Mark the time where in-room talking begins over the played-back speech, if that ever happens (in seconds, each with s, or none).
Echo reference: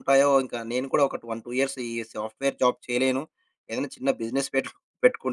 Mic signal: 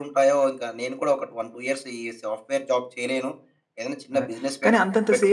4.2 s